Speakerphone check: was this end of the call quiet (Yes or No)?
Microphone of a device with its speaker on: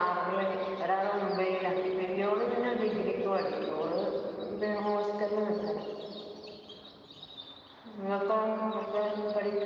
Yes